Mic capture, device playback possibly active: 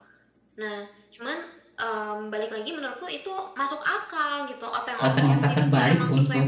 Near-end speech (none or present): present